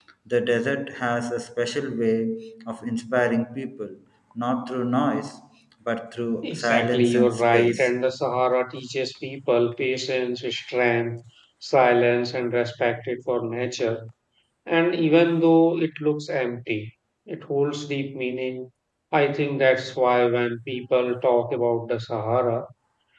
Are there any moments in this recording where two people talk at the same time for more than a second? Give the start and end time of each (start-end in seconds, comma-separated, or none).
6.4-7.9